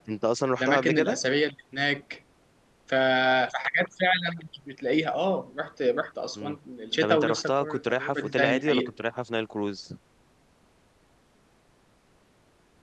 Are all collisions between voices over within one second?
No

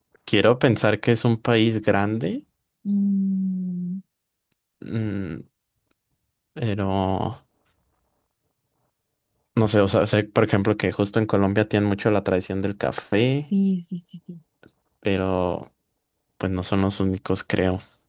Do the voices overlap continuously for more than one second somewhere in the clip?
No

